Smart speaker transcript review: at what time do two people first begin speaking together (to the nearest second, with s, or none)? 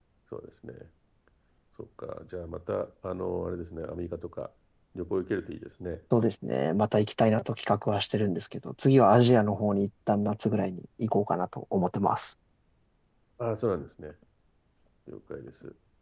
none